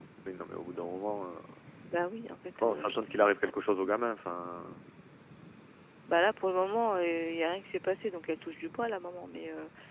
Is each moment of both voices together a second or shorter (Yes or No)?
No